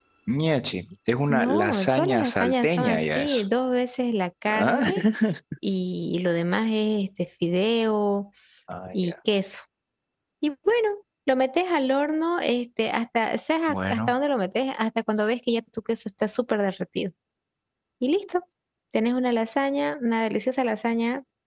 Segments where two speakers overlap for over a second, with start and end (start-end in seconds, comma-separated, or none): 1.3-3.4